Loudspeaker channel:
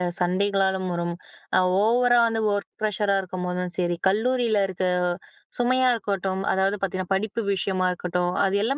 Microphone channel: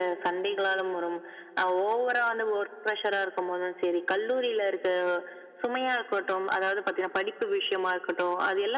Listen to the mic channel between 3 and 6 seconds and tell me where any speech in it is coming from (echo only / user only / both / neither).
echo only